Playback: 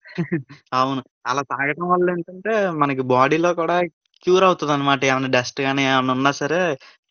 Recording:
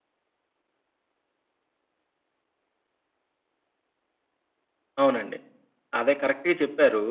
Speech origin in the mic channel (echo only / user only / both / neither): user only